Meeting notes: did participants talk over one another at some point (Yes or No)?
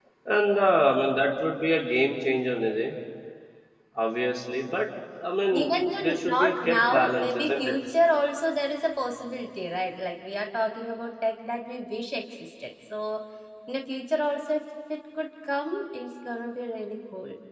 Yes